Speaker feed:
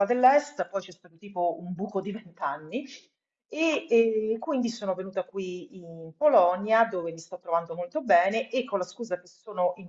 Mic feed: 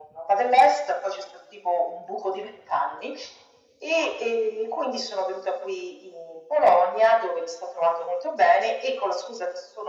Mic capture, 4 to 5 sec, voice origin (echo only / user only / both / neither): echo only